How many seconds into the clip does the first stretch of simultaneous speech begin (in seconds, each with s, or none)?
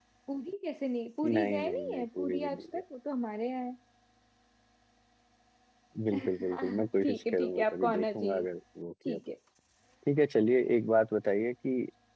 1.2 s